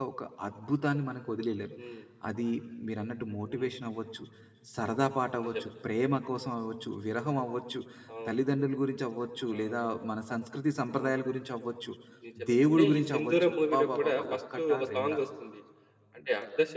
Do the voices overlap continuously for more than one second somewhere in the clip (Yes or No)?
Yes